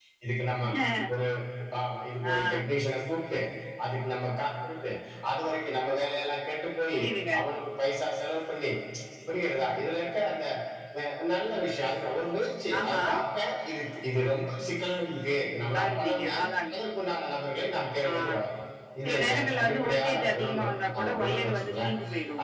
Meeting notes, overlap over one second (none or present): present